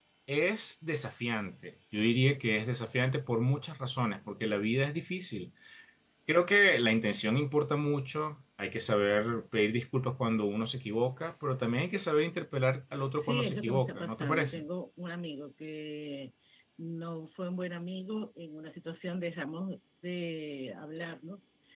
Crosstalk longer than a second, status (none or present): present